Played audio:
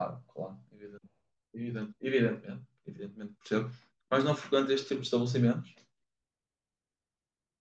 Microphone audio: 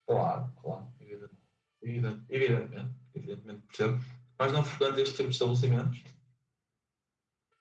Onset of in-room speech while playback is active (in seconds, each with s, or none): none